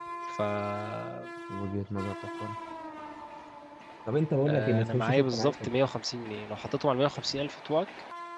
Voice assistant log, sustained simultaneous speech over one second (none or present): present